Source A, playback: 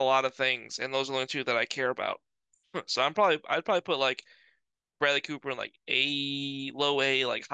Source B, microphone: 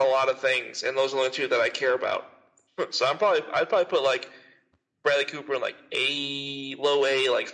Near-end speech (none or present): none